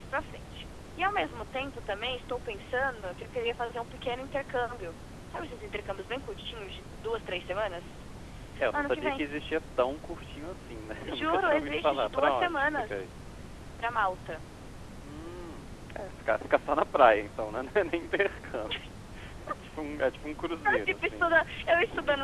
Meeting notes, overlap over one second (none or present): present